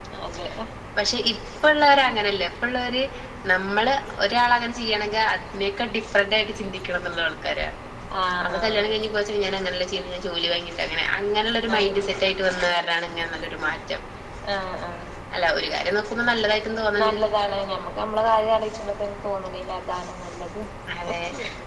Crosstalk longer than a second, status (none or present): none